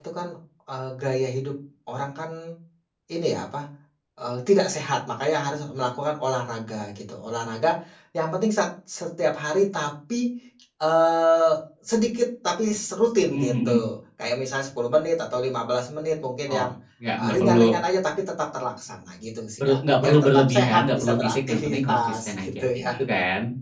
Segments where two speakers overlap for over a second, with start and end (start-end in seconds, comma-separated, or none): 19.6-23.0